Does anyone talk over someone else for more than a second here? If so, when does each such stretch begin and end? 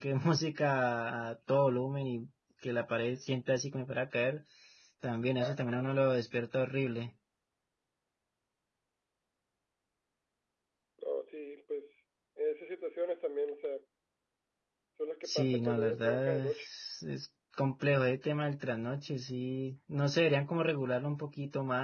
15.2-16.7

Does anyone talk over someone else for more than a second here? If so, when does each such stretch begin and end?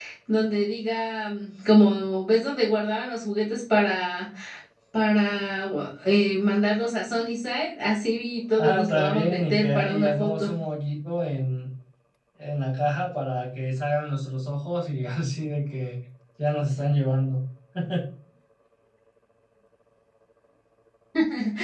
8.6-10.5

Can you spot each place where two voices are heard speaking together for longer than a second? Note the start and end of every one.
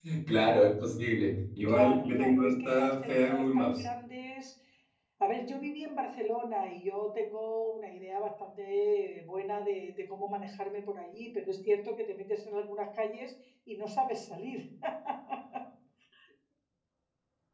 1.7-3.8

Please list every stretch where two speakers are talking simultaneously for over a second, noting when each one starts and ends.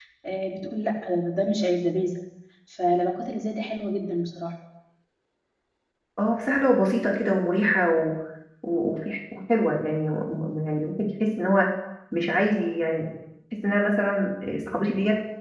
none

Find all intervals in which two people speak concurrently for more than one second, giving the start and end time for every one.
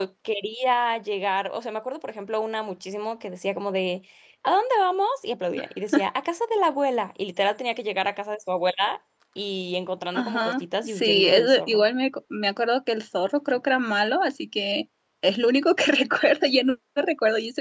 10.1-11.8

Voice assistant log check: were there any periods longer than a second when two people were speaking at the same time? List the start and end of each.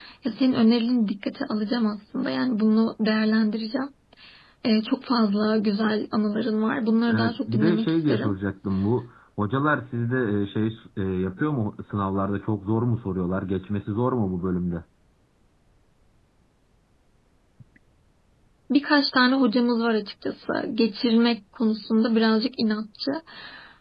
7.1-8.3

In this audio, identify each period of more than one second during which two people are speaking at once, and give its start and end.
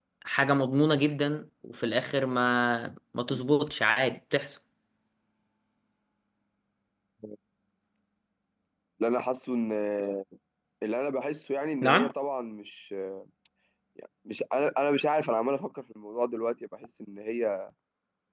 none

